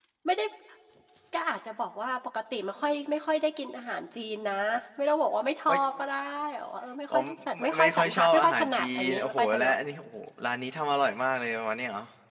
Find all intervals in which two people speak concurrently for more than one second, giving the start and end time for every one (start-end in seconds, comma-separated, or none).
7.6-9.8